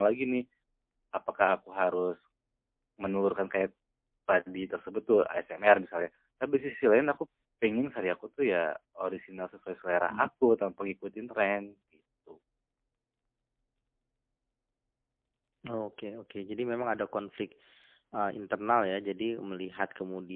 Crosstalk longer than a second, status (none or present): none